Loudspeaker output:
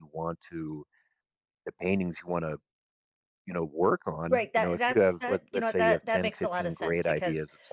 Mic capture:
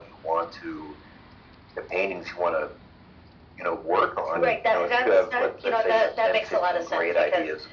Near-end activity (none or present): present